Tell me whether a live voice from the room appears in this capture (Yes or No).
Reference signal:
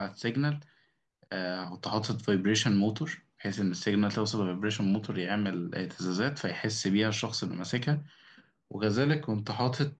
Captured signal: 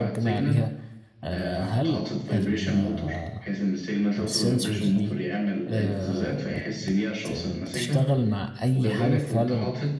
Yes